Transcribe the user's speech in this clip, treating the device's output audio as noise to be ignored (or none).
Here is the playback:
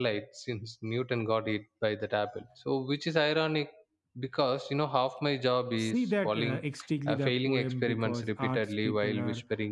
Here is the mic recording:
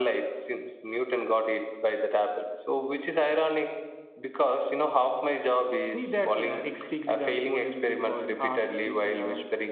none